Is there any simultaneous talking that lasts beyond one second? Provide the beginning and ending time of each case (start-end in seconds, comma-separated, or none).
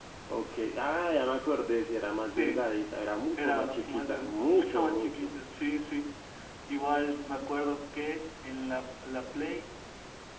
3.4-5.3